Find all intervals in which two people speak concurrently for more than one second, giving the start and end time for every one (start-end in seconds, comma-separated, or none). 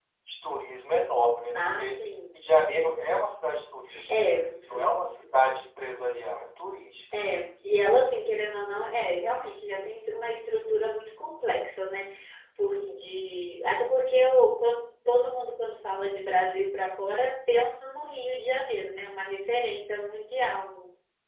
none